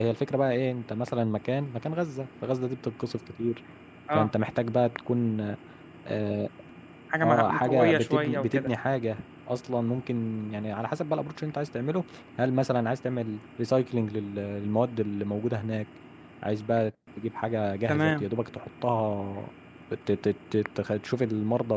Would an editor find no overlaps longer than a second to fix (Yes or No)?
No